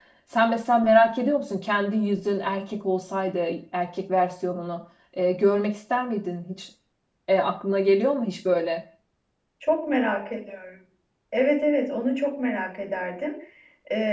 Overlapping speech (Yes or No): No